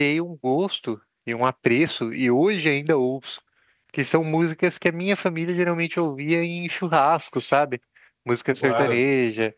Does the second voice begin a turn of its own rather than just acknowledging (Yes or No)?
No